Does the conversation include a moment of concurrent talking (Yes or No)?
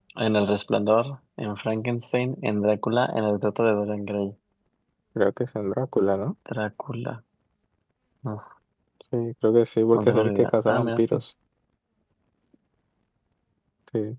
Yes